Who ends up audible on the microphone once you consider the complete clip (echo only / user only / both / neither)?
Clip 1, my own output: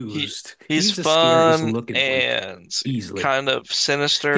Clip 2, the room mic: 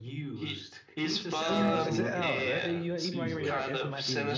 both